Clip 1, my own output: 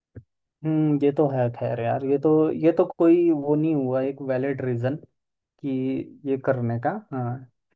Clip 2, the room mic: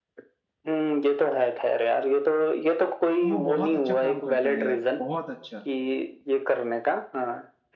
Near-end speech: present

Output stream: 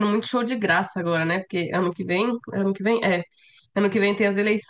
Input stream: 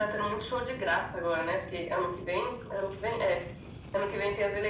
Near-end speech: none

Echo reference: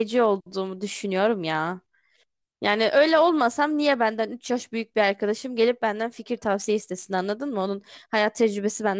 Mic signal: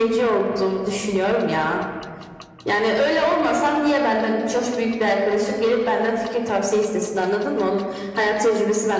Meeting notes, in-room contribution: none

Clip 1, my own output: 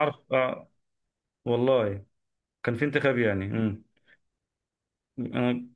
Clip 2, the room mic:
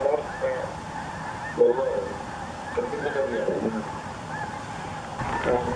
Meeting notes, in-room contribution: none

